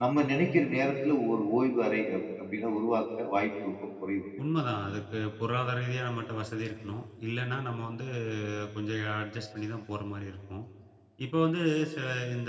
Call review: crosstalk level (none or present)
none